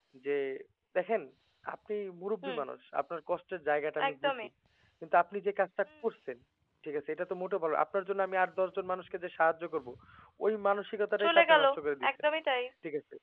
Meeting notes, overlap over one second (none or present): none